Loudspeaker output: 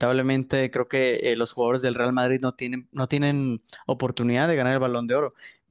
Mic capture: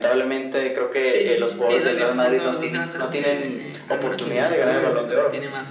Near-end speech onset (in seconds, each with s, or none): 1.1 s